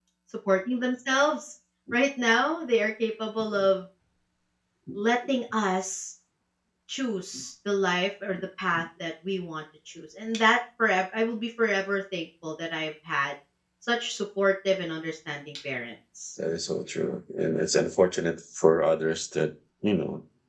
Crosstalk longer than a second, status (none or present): none